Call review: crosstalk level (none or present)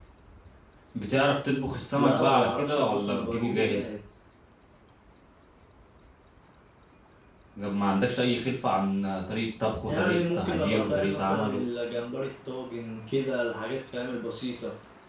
present